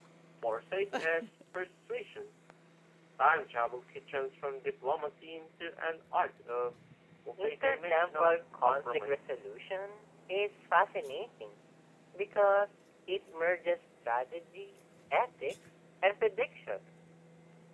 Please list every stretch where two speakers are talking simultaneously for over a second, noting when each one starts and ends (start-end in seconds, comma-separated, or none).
7.4-9.3